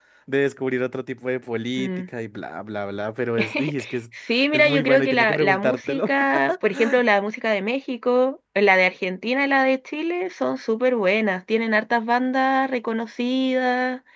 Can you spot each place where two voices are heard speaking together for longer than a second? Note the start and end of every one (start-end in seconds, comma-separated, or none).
4.5-6.1